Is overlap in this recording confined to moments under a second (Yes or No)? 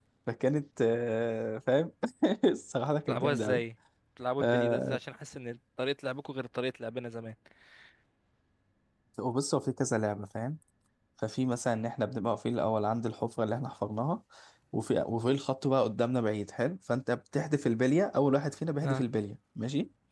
Yes